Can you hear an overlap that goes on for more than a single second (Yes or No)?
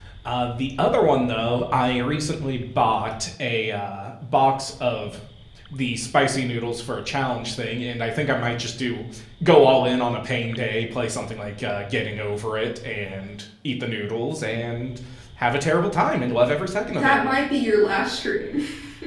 No